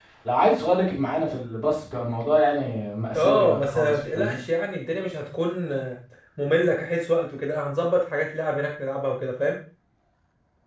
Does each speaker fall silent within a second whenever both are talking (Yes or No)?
No